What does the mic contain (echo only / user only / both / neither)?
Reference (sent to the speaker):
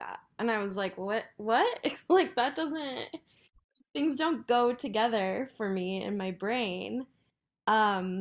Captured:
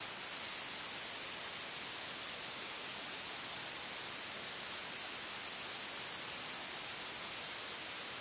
neither